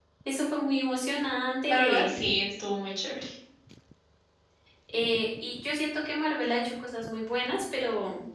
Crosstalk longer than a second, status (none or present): none